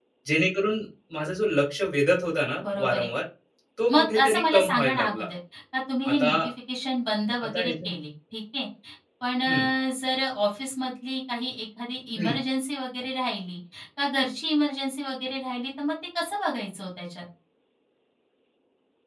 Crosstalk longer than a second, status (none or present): present